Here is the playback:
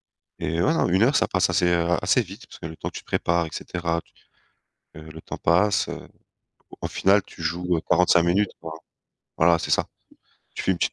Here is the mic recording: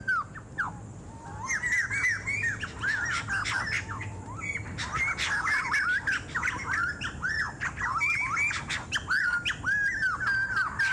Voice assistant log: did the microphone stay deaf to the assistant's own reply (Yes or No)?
Yes